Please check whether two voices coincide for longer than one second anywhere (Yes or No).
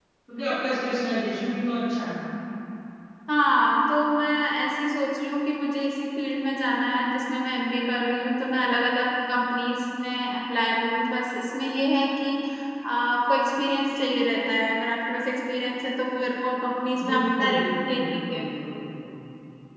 Yes